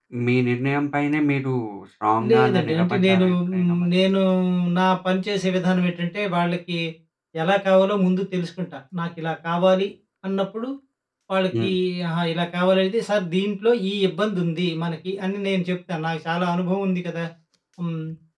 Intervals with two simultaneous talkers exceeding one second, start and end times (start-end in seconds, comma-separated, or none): 2.3-3.9